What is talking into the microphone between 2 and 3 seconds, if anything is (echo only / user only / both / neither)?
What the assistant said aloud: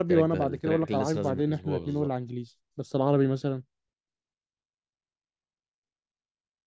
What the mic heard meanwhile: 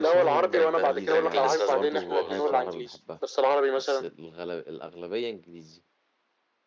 both